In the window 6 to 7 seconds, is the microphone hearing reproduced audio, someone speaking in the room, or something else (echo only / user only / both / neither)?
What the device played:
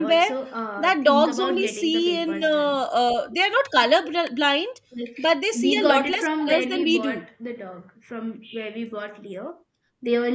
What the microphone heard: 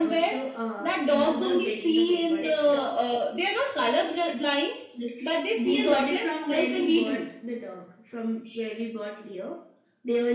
echo only